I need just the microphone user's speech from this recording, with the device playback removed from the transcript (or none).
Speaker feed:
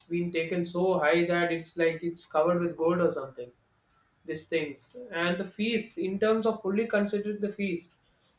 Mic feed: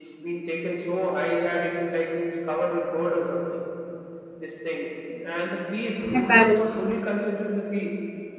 and parents